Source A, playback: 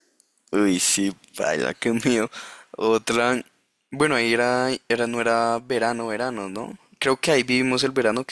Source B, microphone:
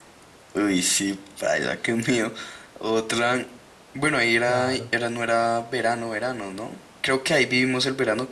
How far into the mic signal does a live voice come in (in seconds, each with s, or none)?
4.4 s